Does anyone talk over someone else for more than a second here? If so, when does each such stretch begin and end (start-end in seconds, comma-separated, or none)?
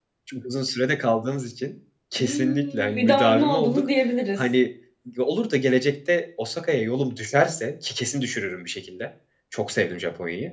2.2-3.9